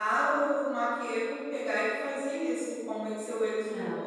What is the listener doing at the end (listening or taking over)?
taking over